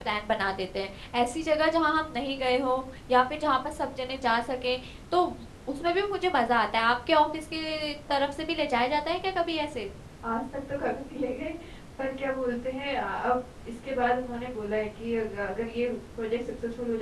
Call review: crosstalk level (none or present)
none